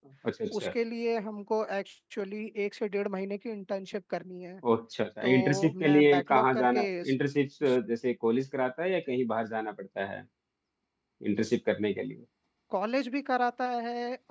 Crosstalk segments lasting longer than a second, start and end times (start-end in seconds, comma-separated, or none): 5.2-7.1